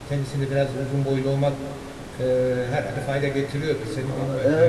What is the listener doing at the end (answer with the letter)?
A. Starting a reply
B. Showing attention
A